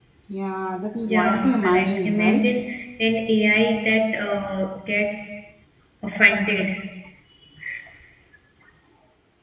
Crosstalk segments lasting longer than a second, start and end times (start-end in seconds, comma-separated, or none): 1.1-2.6